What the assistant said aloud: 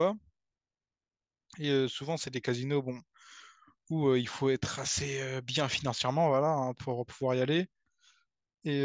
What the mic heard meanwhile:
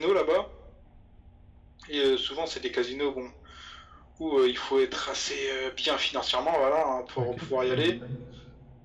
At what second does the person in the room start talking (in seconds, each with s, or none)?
7.2 s